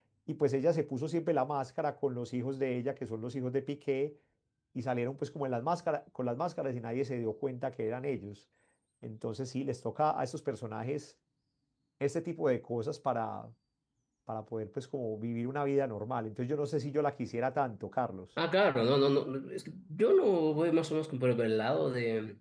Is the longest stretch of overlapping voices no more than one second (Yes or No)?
Yes